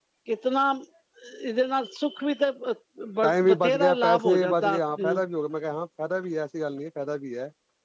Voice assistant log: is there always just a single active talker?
No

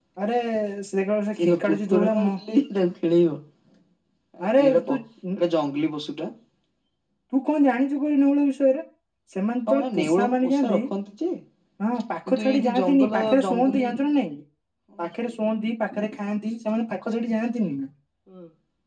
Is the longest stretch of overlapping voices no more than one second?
No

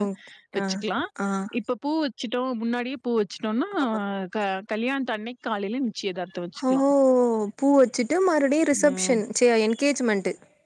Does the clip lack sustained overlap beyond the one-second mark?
Yes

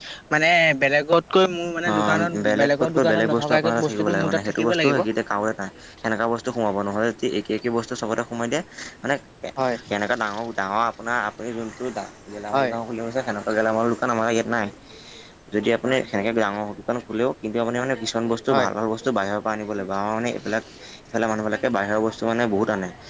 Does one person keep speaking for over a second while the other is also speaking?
Yes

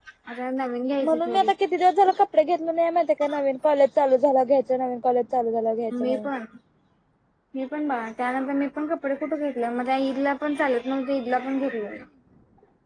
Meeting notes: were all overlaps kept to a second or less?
Yes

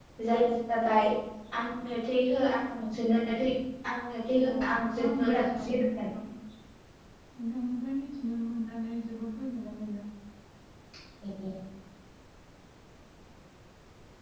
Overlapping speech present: Yes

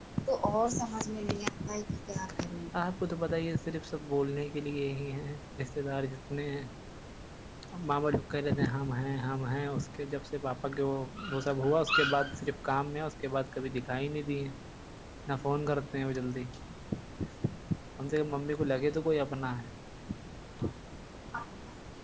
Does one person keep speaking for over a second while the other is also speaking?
No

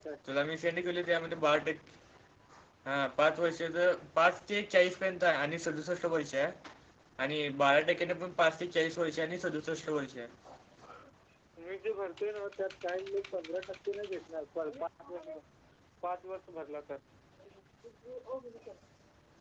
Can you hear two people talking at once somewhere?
No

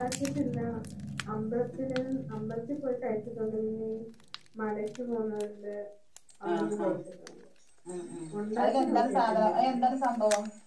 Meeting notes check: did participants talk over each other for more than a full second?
Yes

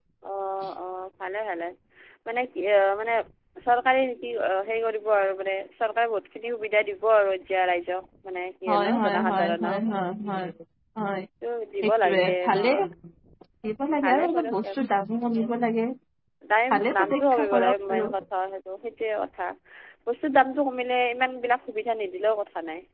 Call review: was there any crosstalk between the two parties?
Yes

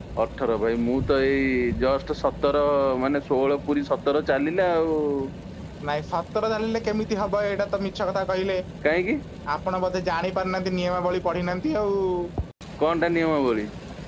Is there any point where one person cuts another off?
No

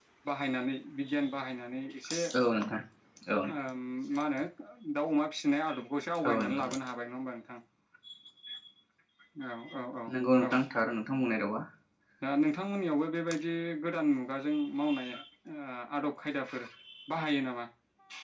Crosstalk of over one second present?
No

